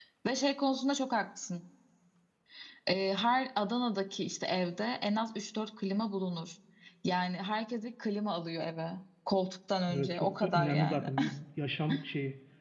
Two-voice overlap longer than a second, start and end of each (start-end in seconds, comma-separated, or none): 9.9-11.1